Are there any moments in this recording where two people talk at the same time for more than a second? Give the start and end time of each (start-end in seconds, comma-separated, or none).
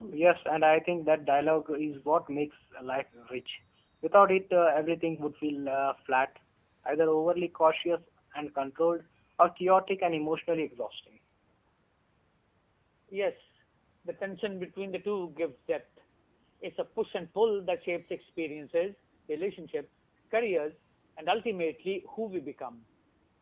none